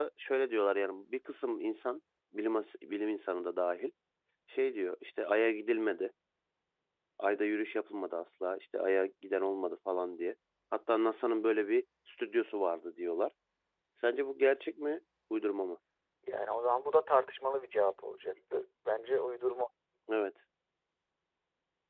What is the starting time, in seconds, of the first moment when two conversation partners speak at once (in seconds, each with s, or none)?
none